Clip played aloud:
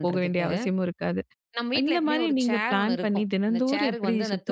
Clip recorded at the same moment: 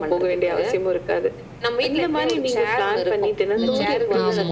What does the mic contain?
both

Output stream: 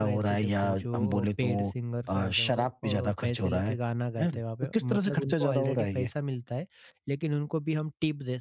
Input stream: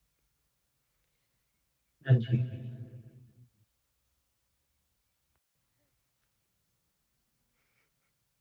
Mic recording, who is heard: user only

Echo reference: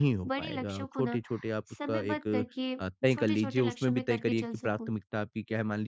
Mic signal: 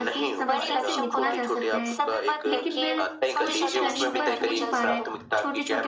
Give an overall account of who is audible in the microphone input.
both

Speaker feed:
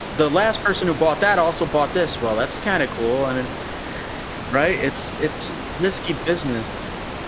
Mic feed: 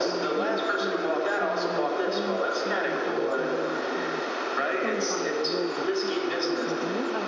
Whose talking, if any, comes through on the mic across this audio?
both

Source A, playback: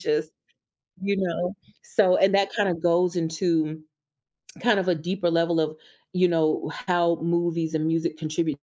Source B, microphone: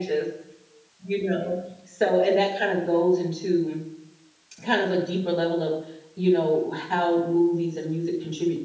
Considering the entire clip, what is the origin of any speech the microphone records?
echo only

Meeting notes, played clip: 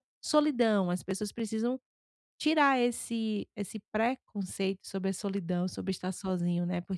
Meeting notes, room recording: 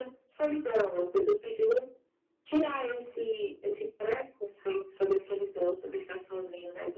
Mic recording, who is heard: echo only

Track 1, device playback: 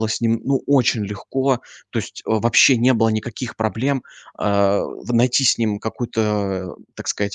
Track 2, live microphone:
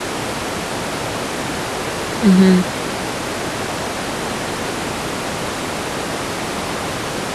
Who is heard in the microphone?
user only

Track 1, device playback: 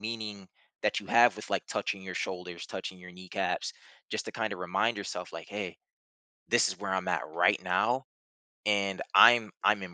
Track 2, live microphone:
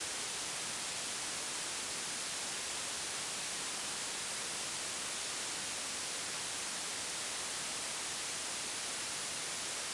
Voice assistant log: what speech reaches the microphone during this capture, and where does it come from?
neither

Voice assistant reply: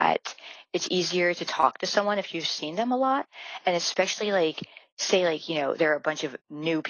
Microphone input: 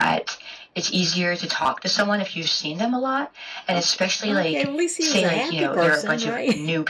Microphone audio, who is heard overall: both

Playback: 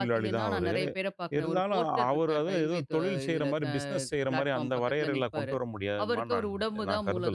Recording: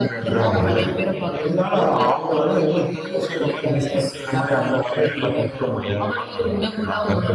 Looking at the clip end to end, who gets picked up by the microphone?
echo only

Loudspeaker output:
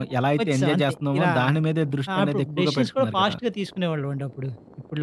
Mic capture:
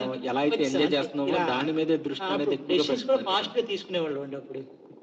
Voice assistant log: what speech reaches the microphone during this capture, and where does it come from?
echo only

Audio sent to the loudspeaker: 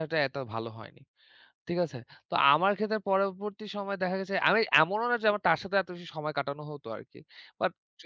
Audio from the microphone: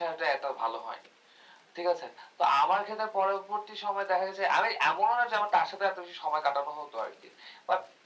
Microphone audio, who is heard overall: echo only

